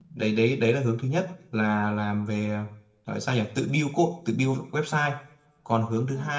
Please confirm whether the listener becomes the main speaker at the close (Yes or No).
No